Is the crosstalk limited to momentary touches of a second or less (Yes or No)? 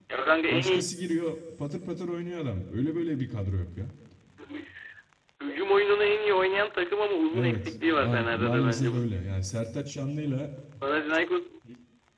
No